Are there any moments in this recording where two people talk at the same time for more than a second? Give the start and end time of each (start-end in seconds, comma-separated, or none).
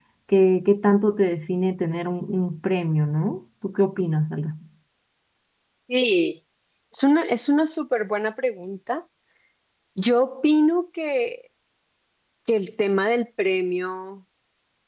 none